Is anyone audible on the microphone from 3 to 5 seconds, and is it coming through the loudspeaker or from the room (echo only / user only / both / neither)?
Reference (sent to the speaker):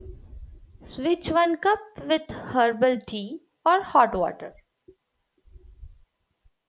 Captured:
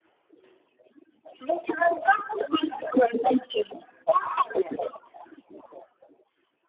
echo only